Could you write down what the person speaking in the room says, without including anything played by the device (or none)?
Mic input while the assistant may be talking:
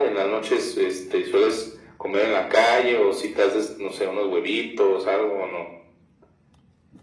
none